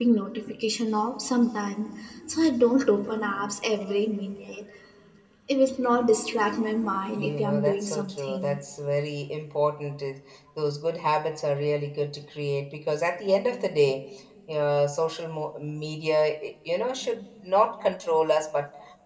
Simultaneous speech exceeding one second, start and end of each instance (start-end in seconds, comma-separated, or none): 7.2-8.6